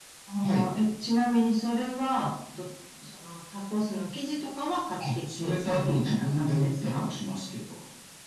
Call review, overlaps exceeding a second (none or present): present